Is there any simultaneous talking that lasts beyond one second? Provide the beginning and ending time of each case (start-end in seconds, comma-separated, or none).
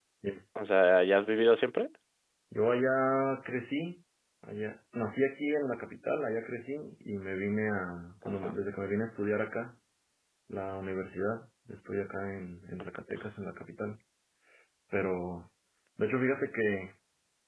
none